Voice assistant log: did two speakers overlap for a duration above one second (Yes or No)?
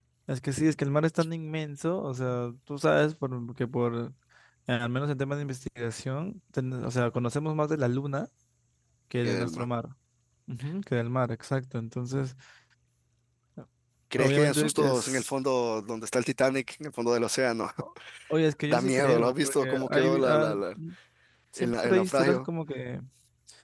Yes